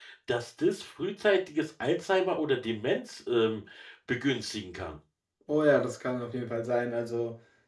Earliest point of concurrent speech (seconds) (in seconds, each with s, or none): none